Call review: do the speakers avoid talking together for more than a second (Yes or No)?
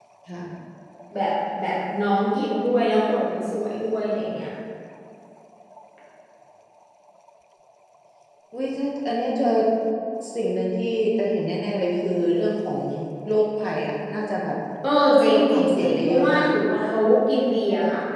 No